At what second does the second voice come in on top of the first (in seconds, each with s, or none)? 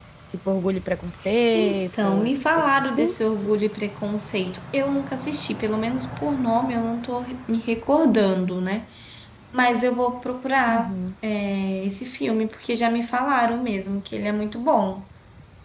1.5 s